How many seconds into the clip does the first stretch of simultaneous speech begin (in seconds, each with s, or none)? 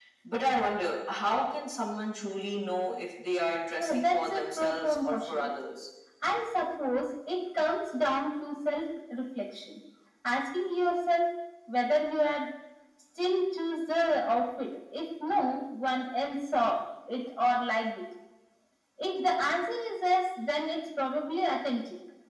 3.8 s